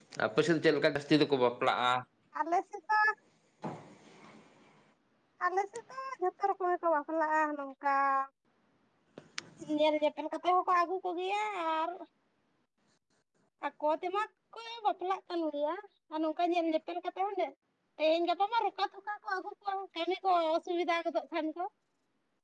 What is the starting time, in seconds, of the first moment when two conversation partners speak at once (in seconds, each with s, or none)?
none